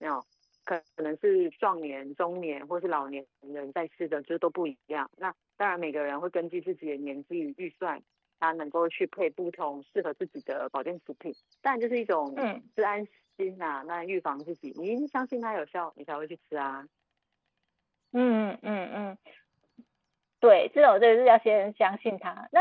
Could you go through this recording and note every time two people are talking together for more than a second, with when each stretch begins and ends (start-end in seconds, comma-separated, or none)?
none